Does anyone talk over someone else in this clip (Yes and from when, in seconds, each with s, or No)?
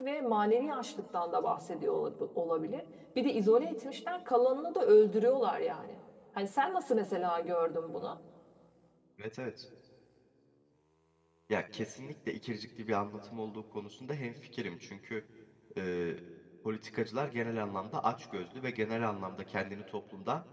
No